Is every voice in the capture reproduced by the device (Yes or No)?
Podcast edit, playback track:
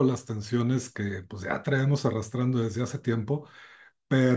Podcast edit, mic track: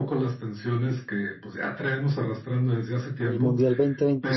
No